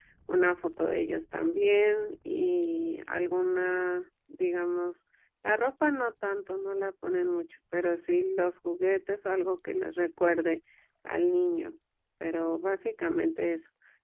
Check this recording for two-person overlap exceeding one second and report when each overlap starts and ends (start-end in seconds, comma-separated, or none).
none